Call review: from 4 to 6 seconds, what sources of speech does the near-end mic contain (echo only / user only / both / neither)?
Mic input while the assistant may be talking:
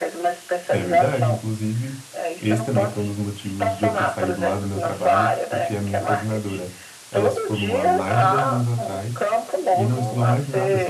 both